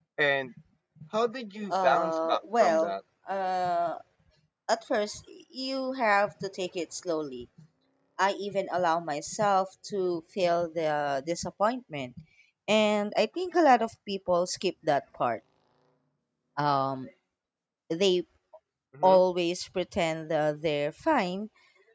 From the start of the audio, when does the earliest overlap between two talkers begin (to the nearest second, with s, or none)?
2 s